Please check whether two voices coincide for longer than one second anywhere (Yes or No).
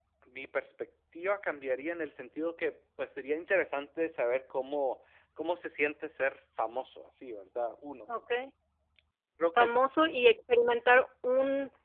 No